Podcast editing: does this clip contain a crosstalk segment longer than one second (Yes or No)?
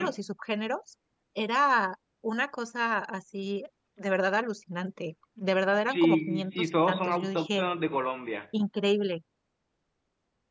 Yes